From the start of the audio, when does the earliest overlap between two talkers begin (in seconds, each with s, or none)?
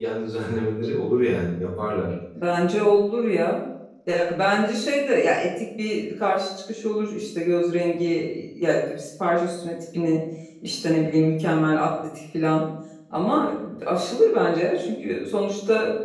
none